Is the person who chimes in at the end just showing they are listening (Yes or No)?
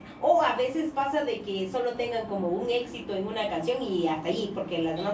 Yes